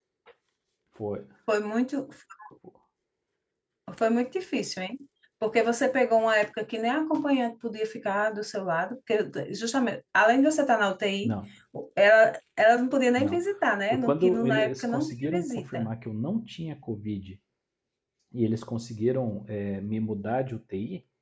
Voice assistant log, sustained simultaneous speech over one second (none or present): present